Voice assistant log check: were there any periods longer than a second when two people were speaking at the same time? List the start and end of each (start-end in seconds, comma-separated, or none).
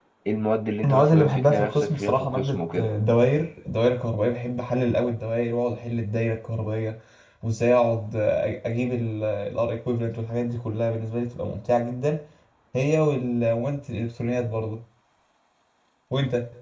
0.8-2.9